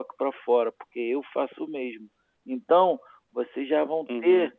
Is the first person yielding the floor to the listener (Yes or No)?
No